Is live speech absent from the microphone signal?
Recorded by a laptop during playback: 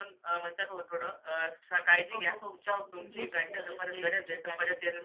Yes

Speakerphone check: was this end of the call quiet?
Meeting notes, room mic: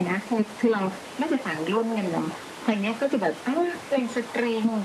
Yes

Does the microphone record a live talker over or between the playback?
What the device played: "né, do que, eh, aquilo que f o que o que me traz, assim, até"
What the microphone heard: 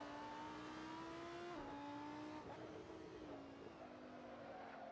No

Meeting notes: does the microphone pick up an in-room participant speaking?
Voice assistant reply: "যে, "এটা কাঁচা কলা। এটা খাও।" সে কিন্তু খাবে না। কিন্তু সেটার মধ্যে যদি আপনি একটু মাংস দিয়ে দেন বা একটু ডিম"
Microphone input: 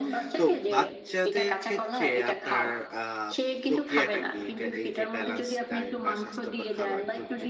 Yes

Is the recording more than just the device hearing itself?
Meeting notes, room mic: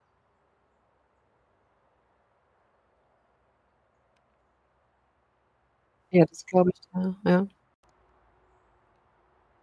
Yes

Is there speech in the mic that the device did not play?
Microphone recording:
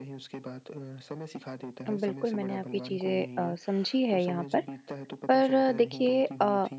Yes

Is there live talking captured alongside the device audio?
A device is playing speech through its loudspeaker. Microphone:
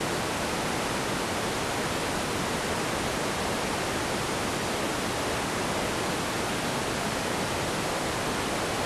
No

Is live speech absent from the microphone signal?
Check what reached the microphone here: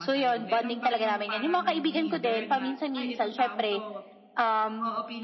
No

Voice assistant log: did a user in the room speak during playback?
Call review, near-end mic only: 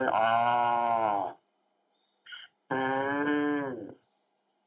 No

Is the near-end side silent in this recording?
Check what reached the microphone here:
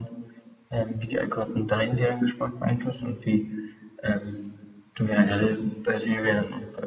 Yes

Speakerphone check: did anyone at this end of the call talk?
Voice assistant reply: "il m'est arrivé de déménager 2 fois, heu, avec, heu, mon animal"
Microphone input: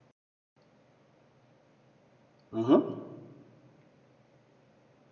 Yes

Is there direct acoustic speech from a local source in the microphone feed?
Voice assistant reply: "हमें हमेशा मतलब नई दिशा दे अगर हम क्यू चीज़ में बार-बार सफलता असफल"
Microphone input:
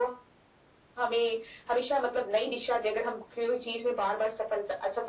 No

